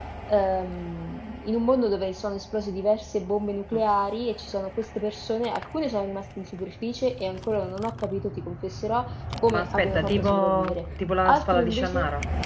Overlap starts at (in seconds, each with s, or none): 9.5 s